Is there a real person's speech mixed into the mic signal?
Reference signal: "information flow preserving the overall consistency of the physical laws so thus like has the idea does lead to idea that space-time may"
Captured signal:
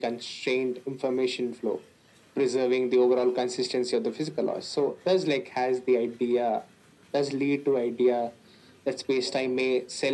No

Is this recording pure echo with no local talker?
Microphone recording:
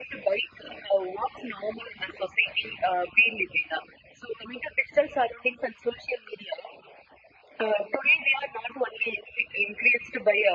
Yes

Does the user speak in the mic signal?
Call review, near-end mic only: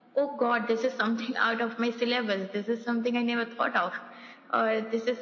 No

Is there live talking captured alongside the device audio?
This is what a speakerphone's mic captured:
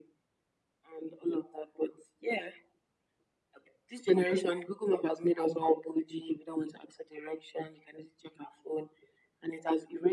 No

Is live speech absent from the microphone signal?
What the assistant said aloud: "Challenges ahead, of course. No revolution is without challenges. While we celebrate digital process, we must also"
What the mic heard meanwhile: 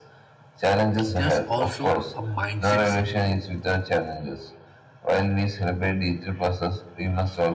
No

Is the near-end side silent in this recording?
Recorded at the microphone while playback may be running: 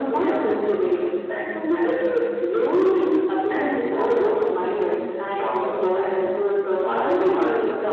No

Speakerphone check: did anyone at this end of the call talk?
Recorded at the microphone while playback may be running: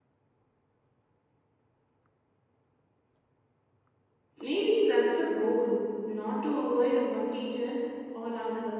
Yes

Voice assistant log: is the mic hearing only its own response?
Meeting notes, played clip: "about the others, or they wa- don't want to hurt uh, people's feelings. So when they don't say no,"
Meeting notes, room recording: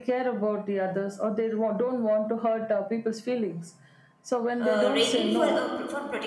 No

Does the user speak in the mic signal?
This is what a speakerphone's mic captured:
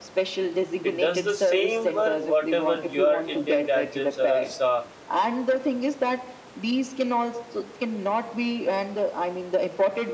Yes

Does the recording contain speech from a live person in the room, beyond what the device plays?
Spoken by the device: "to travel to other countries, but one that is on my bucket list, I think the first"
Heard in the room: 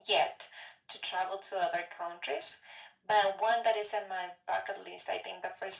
No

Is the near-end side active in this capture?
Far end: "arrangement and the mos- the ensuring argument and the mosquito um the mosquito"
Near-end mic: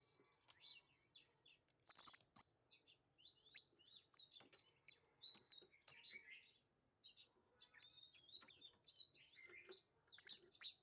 No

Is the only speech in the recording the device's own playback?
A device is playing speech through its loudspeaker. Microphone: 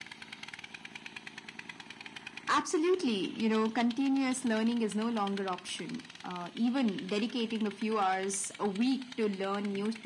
Yes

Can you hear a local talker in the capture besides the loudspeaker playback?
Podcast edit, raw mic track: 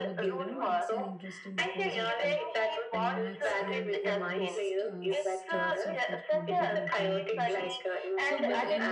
Yes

